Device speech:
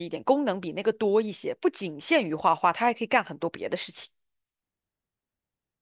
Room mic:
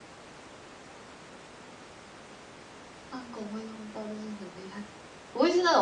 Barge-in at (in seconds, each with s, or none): 3.1 s